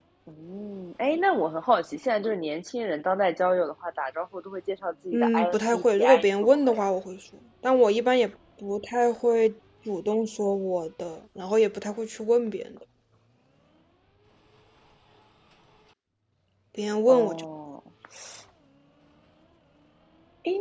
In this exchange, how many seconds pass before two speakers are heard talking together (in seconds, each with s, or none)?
5.1 s